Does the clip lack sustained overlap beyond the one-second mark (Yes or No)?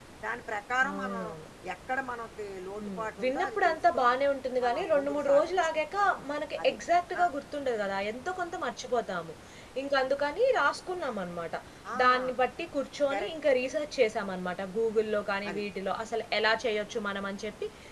No